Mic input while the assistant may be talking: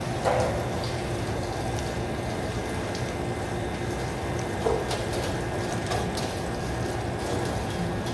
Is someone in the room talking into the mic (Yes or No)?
No